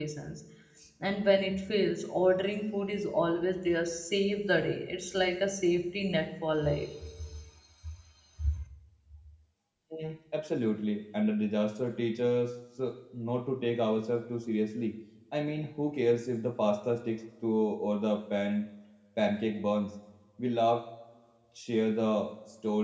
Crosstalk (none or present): none